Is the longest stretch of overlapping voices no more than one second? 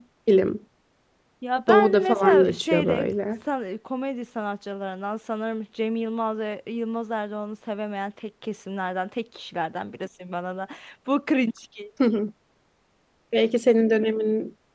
No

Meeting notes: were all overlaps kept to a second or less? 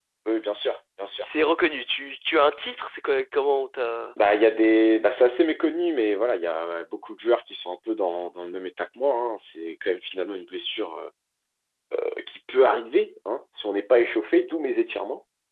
Yes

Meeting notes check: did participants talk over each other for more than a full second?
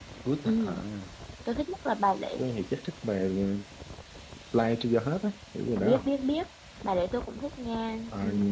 No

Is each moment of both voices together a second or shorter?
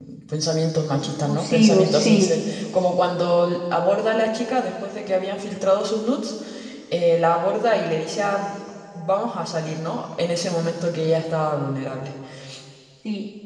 No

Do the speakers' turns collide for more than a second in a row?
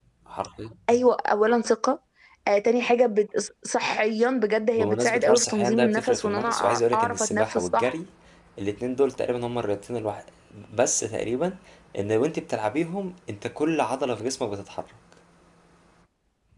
Yes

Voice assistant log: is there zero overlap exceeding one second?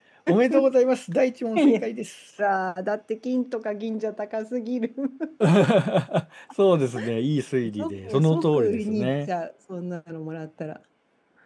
No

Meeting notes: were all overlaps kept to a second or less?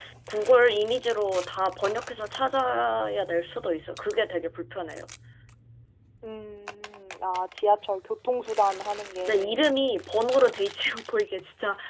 Yes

